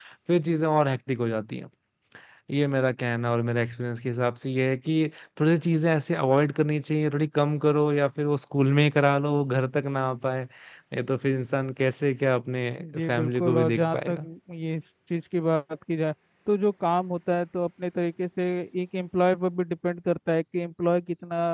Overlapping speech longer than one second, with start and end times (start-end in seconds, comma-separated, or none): 12.8-14.3